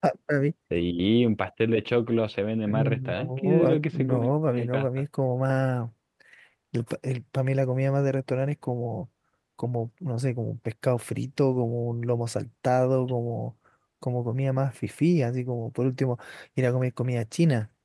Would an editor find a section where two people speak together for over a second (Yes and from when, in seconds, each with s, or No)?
Yes, from 2.7 s